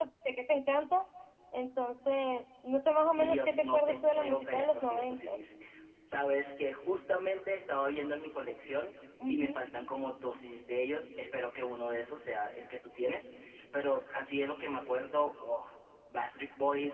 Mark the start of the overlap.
3 s

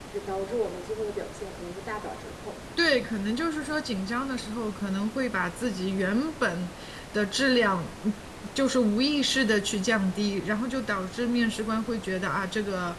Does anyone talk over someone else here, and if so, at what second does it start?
none

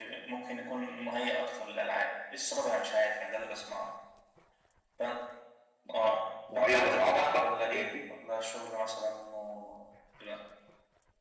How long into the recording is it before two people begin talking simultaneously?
7 s

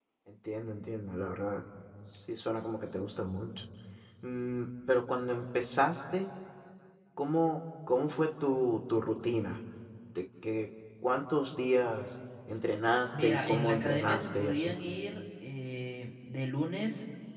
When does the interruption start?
13 s

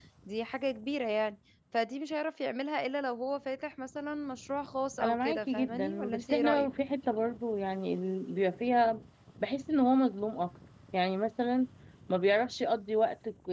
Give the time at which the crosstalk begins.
5 s

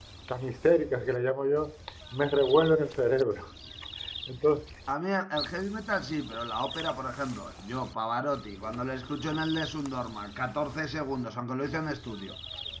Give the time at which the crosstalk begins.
none

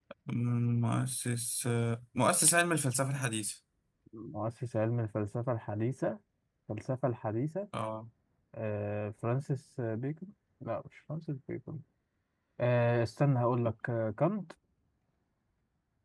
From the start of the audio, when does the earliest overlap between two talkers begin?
none

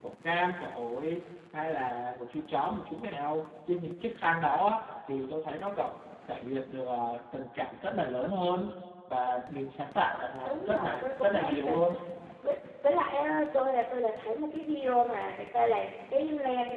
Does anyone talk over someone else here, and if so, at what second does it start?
10 s

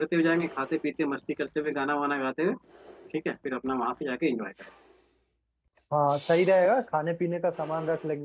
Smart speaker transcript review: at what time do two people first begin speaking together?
none

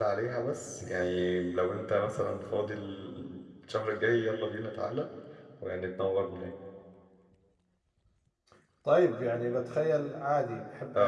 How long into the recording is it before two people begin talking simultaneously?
none

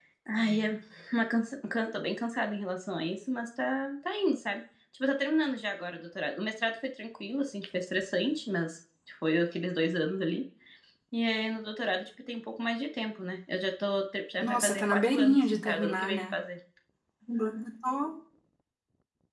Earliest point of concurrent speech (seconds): 14 s

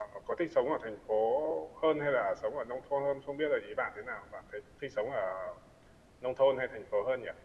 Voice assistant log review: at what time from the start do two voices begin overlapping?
none

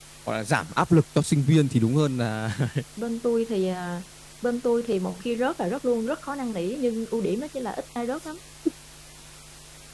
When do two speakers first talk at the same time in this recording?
none

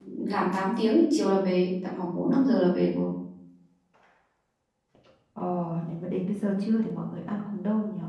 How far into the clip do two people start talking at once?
none

